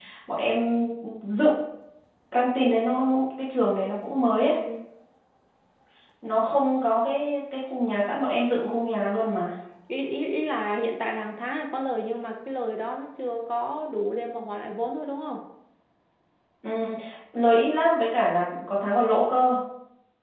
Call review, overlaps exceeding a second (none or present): none